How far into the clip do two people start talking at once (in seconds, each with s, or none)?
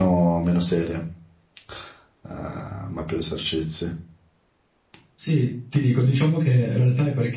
none